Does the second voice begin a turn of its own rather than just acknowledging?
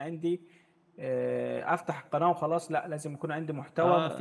Yes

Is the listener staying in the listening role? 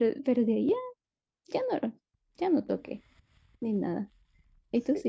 No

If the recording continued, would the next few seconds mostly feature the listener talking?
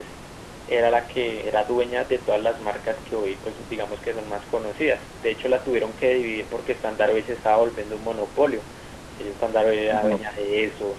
No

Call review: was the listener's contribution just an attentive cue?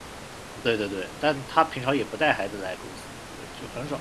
Yes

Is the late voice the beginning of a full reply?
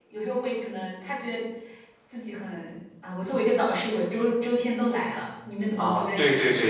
Yes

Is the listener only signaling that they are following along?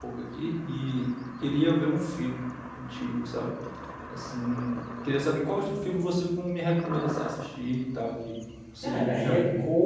No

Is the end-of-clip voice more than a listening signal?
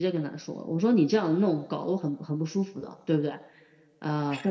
No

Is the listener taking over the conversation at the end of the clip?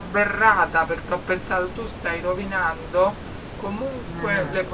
No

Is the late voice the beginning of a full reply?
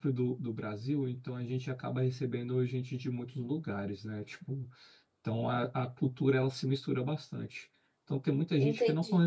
No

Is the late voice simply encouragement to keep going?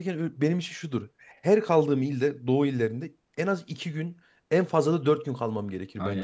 No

